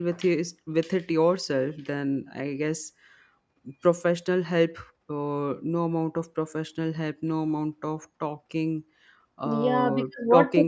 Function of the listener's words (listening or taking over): taking over